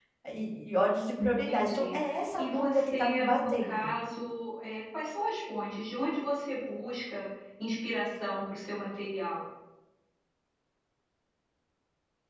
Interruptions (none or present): present